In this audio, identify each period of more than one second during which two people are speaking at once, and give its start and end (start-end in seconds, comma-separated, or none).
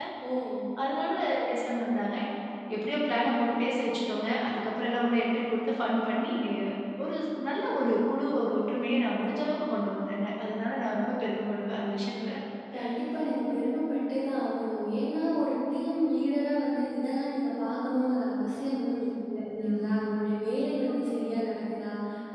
none